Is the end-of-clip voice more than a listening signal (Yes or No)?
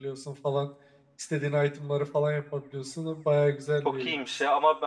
Yes